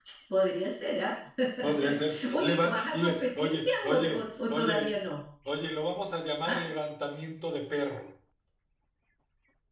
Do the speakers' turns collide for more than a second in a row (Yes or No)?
Yes